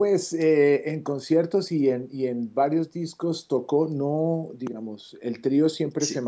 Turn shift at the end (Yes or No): No